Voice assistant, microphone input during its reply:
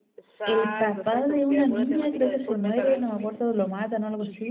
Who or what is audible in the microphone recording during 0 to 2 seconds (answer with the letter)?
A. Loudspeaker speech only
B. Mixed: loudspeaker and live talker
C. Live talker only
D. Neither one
B